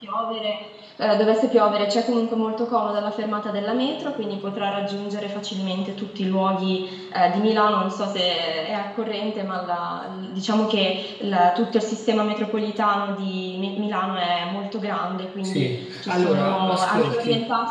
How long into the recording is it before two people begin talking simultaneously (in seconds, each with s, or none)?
15.4 s